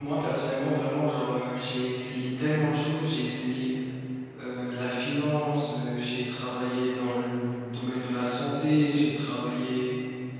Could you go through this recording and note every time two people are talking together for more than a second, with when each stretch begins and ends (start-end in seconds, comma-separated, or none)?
none